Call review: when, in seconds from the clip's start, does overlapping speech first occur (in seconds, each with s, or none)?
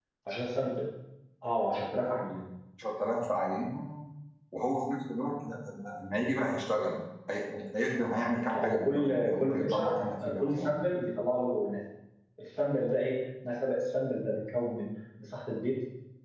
8.5 s